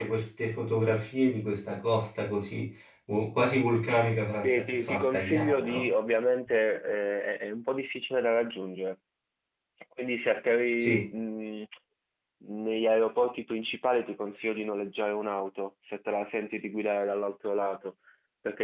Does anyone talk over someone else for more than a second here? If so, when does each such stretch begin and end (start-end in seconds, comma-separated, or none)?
4.4-5.9